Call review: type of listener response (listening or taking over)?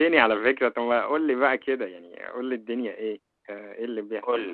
taking over